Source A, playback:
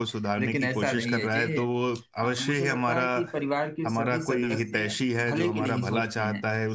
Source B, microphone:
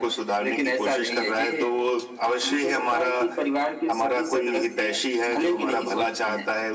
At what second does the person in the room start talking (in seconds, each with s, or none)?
none